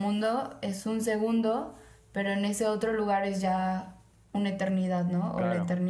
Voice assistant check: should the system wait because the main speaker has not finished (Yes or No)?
No